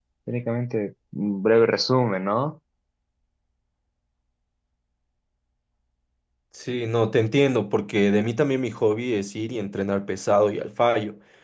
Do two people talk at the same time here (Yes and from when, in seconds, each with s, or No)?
No